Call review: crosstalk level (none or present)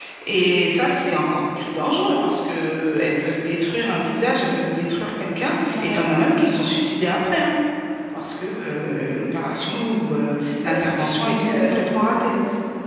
present